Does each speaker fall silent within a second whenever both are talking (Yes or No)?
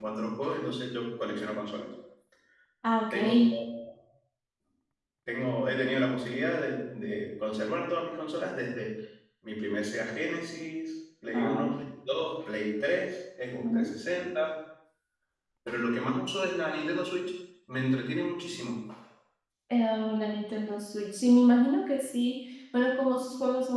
Yes